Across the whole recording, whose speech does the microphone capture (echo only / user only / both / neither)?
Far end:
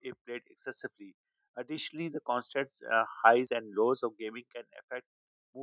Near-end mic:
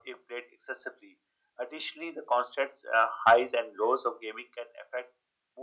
echo only